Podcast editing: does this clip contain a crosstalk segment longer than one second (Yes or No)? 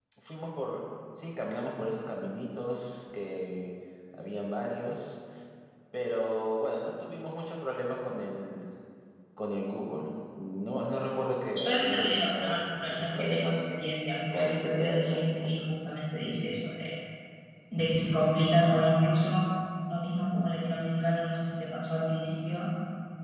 Yes